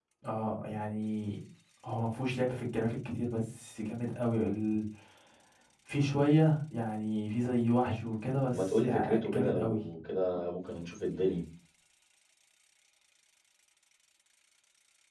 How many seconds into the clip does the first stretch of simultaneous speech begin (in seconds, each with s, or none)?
8.4 s